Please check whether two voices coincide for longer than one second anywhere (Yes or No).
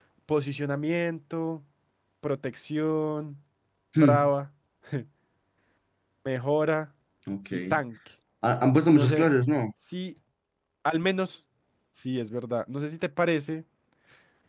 No